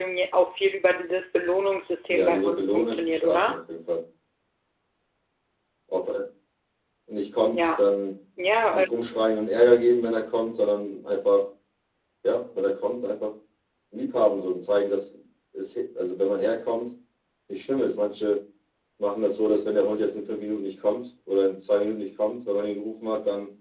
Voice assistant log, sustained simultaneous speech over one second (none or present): present